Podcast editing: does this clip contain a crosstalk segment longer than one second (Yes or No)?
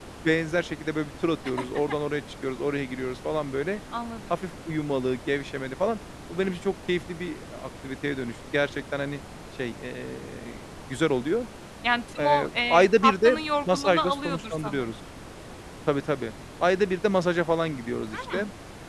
Yes